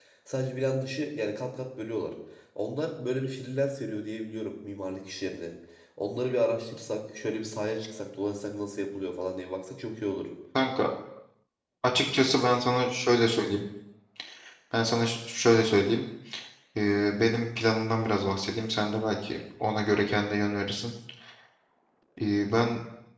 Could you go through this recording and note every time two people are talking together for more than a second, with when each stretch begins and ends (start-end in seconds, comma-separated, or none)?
none